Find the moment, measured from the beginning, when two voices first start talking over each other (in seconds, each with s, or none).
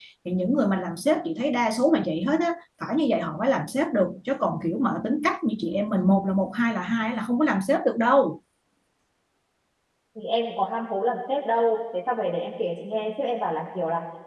none